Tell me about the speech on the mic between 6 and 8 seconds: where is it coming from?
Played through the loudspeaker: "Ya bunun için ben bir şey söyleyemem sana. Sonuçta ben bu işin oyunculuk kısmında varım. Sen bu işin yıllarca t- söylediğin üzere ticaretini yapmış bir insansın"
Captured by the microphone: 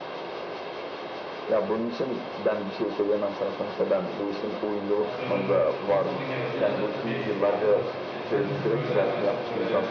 both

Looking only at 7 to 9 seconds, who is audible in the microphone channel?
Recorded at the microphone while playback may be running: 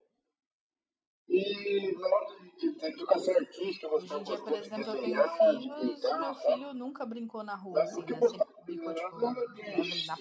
both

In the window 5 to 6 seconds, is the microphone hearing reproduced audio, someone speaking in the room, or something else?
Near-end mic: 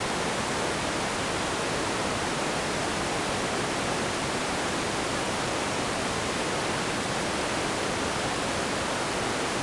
neither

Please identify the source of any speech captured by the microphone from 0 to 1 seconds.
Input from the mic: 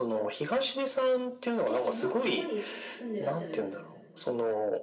echo only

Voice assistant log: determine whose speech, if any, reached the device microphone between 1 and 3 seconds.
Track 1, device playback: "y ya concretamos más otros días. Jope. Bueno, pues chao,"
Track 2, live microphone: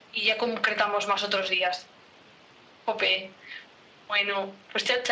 echo only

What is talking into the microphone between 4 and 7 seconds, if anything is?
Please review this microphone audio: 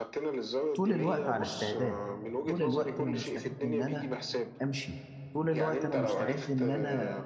both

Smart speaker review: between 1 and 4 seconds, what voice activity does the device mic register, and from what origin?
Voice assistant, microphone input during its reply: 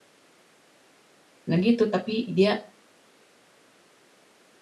user only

